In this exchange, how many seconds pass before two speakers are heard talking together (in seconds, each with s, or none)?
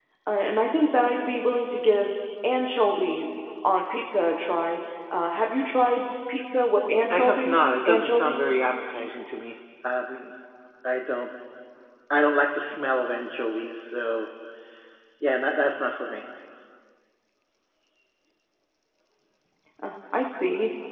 7.1 s